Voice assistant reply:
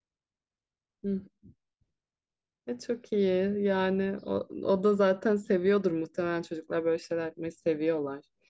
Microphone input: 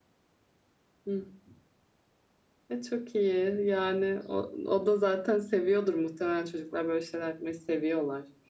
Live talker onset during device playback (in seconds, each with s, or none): none